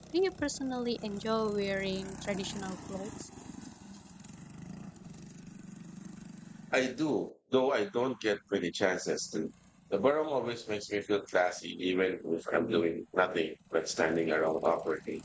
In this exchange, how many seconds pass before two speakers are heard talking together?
none

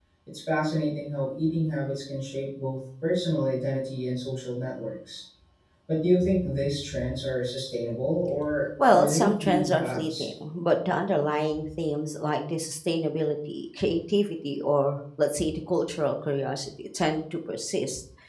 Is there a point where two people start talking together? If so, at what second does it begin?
8.8 s

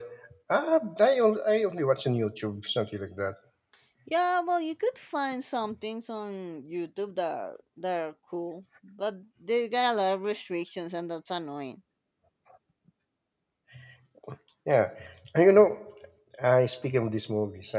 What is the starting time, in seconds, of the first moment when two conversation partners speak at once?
none

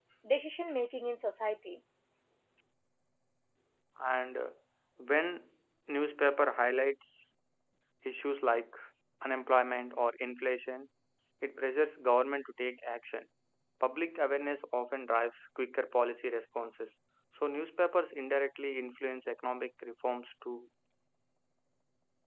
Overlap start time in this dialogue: none

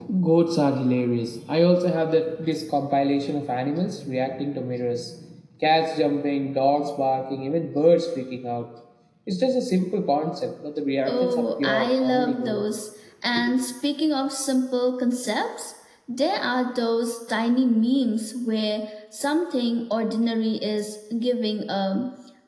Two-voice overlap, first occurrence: 11.1 s

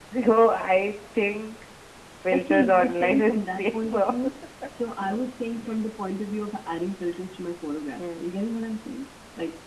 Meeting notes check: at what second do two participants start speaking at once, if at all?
2.3 s

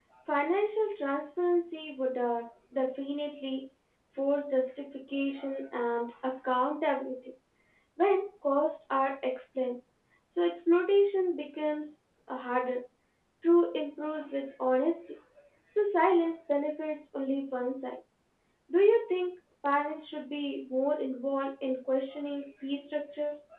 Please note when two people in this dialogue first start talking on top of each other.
none

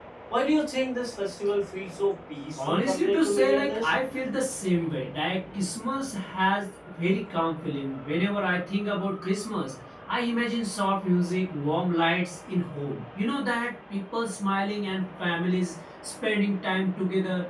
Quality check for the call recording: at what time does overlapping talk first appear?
2.6 s

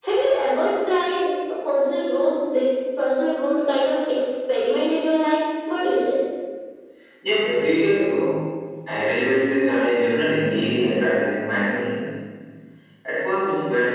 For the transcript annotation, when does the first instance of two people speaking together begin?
none

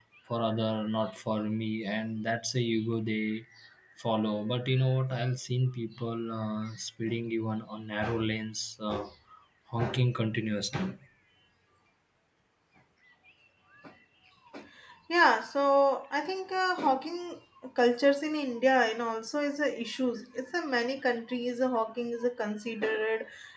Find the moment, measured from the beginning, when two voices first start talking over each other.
none

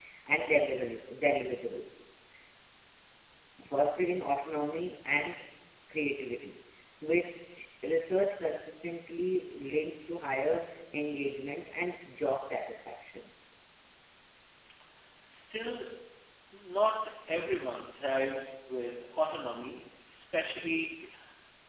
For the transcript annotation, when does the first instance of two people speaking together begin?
none

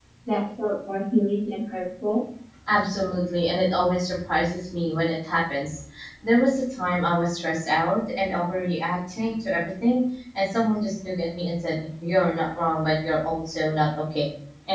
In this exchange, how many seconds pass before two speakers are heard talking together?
none

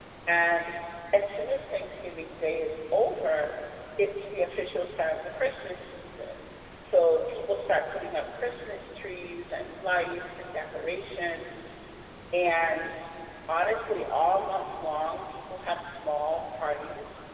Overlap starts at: none

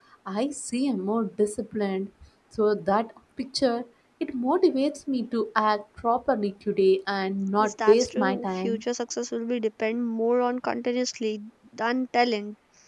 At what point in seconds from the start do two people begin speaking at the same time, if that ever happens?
7.6 s

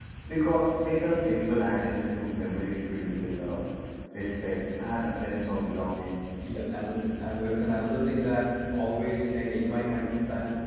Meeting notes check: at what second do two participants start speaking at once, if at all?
none

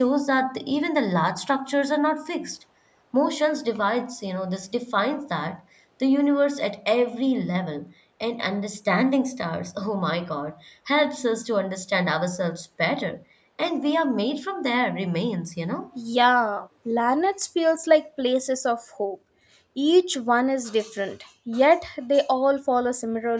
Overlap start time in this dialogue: none

